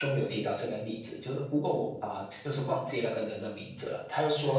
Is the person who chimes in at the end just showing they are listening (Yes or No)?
Yes